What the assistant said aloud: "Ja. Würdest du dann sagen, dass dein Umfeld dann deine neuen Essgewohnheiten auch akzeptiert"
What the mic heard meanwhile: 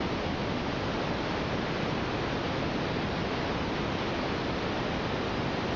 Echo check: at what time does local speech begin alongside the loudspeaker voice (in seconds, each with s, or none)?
none